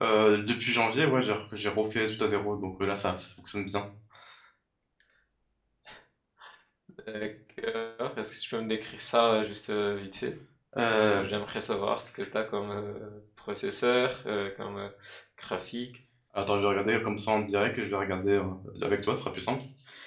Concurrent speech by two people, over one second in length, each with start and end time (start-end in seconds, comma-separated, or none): none